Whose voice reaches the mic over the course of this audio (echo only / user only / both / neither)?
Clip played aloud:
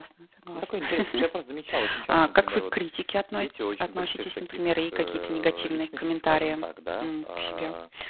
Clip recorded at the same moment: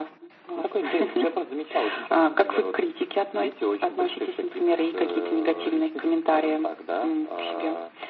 echo only